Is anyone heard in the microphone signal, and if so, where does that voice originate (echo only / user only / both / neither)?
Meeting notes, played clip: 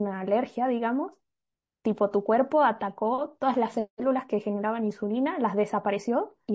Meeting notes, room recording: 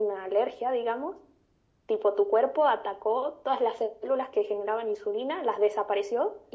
echo only